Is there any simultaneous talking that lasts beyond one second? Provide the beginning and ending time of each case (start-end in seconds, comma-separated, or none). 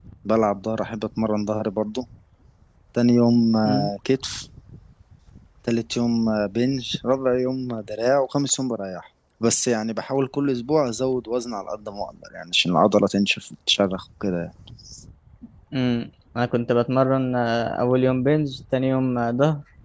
none